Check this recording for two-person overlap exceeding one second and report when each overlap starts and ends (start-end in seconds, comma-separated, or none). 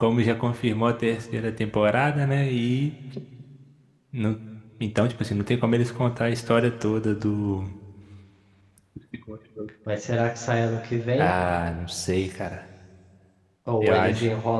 none